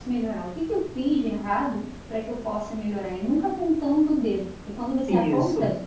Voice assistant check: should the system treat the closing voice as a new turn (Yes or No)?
No